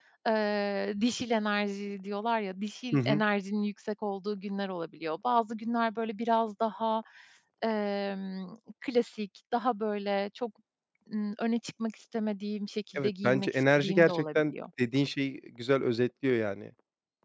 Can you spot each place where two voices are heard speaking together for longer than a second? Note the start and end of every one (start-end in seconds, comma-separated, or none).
12.9-14.5